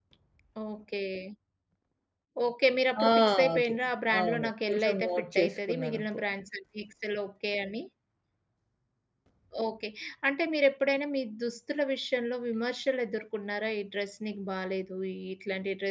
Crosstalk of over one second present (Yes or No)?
Yes